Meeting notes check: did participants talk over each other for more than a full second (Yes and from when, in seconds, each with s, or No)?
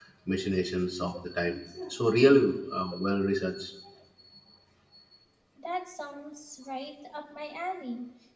No